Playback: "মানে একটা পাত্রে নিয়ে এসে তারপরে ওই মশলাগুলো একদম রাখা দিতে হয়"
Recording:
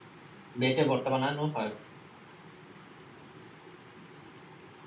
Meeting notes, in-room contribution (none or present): present